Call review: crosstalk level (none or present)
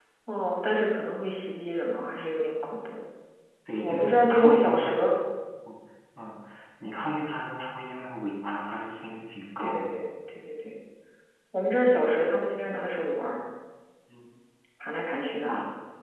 present